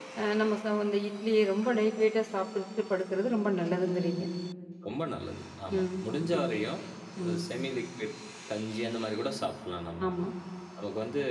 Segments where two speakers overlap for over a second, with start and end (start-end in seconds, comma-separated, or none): none